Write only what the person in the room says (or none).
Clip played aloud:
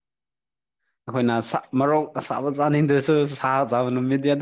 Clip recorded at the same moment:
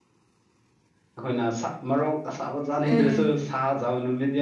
ꯎꯝ ꯎꯝ